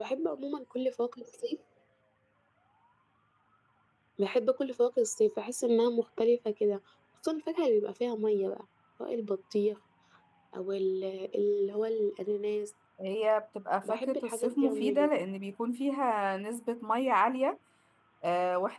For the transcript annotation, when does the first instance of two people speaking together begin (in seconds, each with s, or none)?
13.9 s